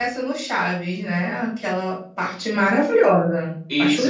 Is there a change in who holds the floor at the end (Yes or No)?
Yes